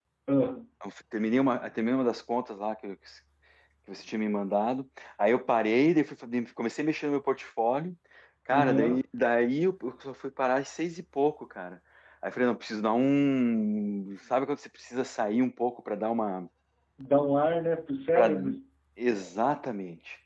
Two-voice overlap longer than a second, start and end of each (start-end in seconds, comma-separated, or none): none